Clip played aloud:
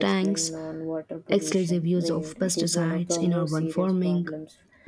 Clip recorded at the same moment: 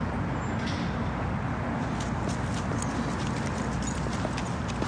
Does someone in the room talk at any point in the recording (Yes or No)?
No